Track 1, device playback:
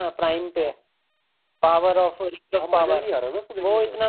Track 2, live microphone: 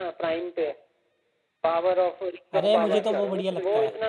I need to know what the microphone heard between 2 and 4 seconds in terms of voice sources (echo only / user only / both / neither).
both